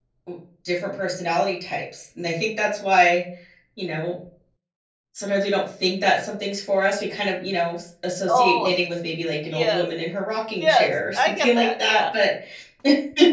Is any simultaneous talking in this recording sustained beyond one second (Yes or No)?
Yes